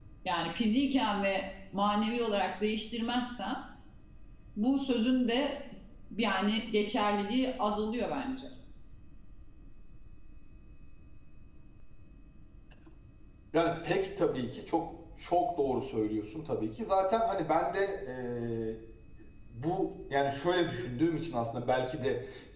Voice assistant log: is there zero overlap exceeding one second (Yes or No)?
Yes